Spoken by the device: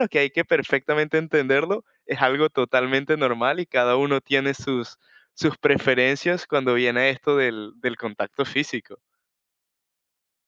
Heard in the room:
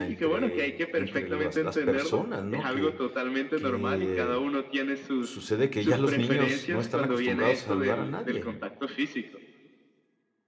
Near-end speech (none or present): present